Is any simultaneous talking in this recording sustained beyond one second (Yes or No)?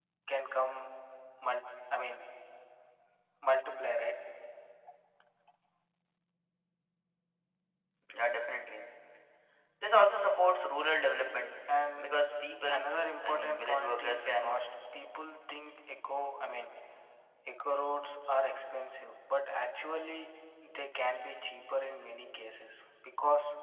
Yes